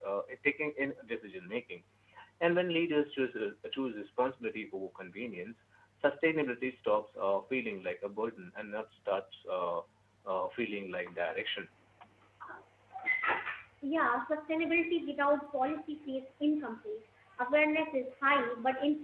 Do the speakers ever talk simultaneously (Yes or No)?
No